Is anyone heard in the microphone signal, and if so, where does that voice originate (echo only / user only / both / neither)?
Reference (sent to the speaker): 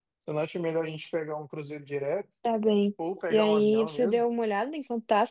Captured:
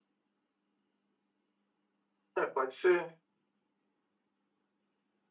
user only